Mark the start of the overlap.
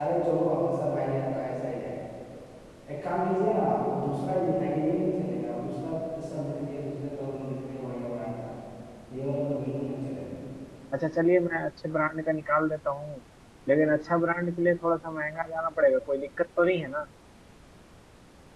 none

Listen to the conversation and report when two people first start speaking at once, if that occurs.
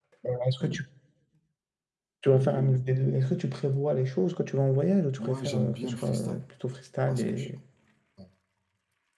5 s

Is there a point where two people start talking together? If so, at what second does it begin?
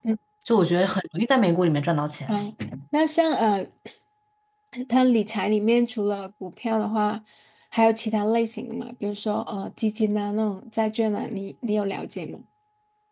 none

